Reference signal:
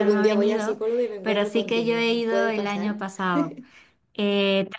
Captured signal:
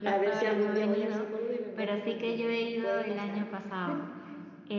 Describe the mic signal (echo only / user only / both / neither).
echo only